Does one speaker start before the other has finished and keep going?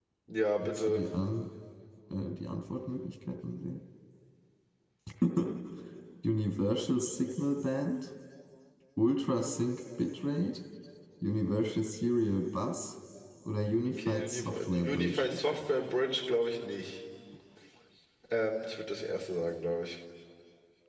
Yes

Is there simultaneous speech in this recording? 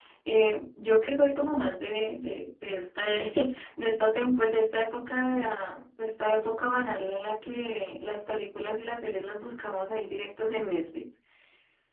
No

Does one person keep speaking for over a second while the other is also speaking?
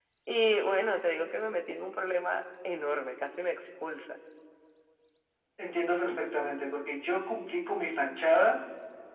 No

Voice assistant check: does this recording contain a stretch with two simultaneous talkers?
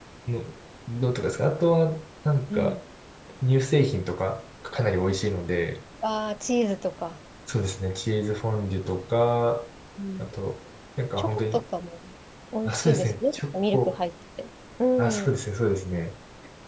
Yes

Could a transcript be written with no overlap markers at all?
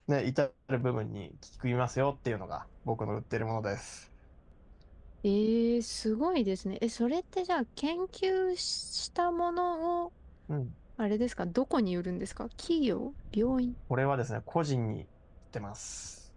Yes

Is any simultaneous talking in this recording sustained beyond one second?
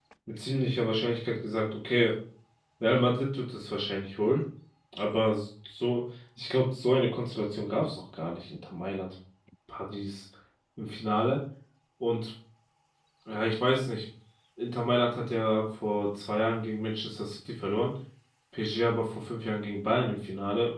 No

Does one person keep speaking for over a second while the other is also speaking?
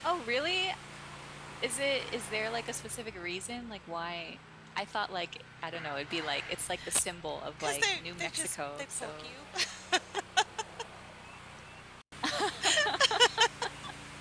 Yes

